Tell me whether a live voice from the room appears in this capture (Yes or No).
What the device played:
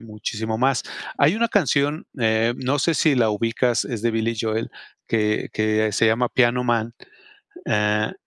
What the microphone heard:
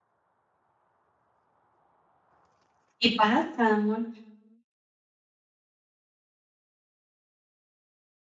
Yes